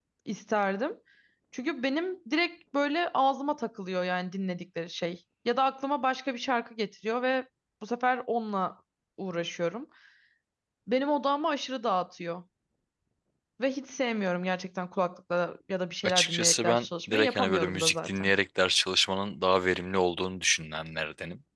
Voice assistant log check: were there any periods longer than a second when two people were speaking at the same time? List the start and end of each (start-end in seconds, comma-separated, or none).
16.0-18.3